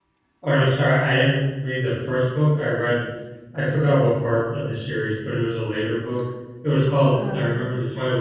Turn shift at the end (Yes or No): No